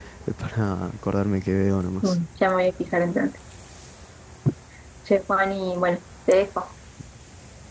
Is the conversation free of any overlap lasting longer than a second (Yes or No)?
Yes